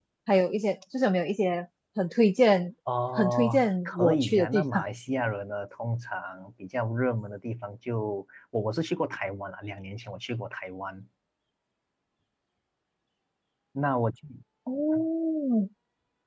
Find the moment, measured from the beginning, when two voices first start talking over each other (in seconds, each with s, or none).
3.2 s